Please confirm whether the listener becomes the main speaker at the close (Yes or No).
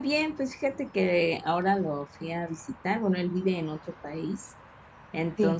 No